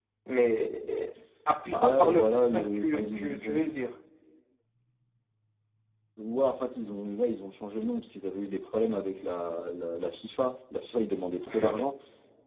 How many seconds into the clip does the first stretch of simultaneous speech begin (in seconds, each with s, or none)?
1.8 s